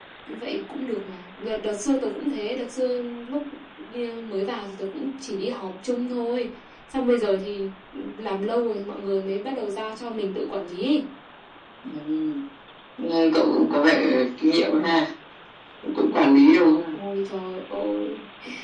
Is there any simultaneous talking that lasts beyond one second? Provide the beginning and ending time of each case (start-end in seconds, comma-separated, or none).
none